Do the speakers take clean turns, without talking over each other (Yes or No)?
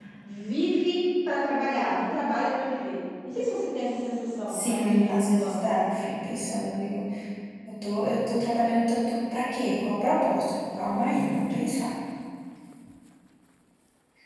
No